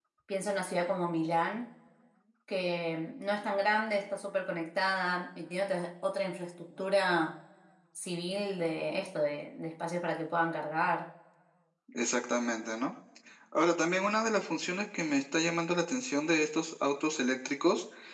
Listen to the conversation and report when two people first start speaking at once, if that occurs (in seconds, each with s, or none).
none